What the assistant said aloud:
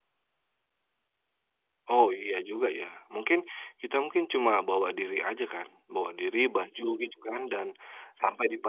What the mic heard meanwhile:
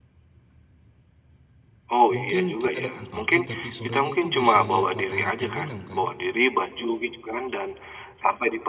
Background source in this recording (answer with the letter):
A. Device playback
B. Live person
B